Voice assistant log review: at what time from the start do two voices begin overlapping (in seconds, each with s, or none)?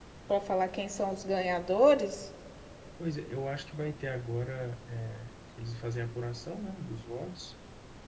none